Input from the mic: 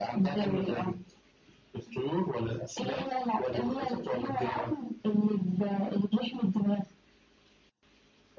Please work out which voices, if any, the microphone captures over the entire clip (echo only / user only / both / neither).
echo only